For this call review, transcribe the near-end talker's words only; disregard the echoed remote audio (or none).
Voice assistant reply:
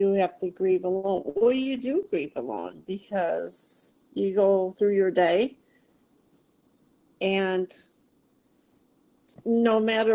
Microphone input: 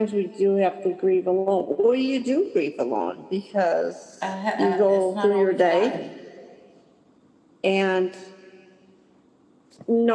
a, a, it's not always light